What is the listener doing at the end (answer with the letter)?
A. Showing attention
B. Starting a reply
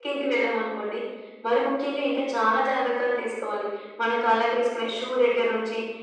A